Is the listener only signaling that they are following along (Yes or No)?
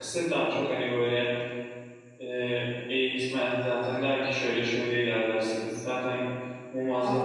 No